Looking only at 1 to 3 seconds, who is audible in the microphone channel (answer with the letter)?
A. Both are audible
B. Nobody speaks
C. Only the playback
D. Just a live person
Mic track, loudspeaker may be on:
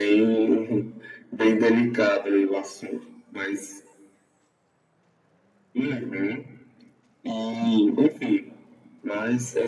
C